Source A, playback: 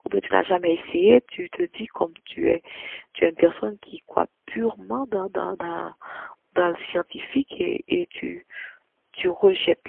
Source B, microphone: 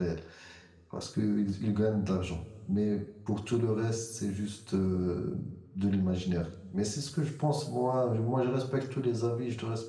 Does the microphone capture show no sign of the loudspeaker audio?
Yes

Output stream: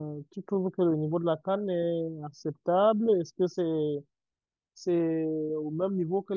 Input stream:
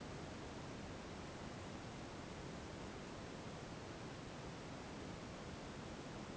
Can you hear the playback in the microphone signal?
No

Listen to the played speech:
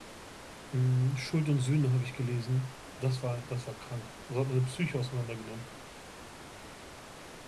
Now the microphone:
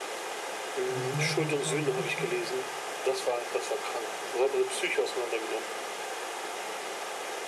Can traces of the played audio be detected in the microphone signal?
Yes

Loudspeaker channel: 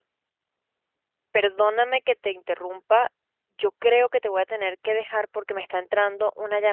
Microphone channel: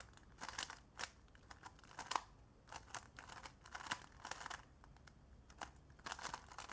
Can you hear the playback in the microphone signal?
No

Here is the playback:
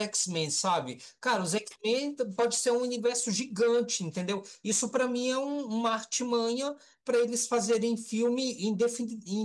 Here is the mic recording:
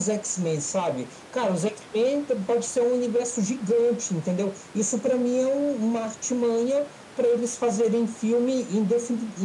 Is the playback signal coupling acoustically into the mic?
Yes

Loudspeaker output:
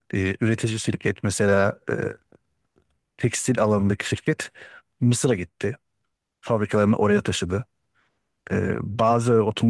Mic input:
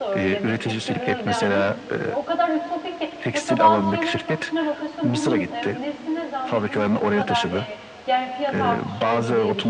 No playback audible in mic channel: No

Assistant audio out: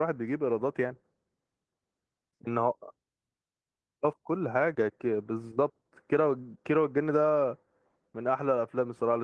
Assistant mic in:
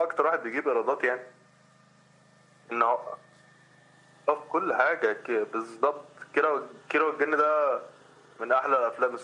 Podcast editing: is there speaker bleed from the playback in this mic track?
Yes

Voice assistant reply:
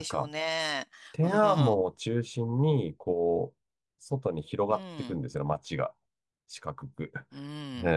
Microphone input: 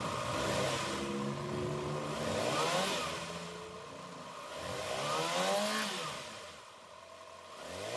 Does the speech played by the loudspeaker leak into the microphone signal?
No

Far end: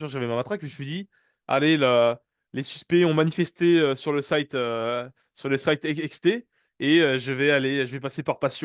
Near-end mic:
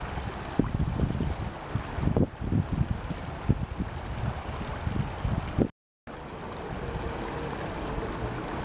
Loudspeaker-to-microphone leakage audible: No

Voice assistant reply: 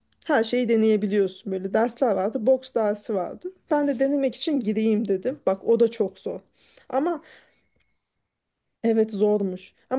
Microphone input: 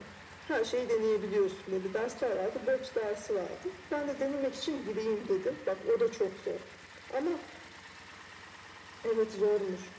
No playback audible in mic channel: No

